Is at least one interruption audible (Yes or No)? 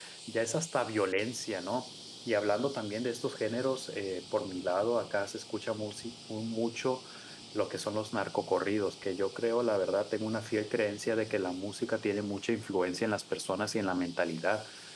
No